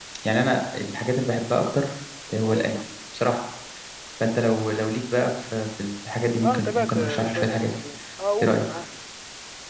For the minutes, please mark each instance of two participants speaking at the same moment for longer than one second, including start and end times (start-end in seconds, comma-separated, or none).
6.4-7.7